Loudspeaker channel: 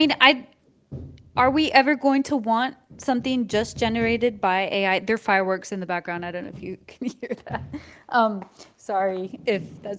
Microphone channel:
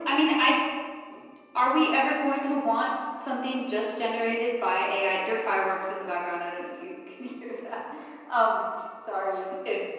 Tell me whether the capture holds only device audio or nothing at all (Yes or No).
Yes